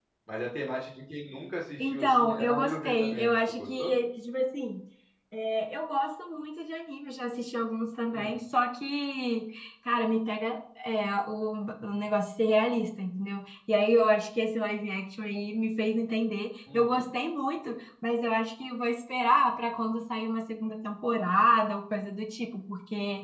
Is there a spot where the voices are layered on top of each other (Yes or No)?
Yes